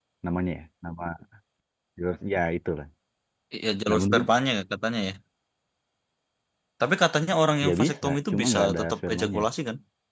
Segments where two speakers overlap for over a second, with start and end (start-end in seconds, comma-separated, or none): 7.7-9.4